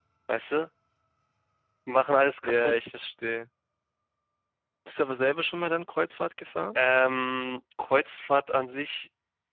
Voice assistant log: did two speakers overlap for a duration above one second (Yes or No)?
No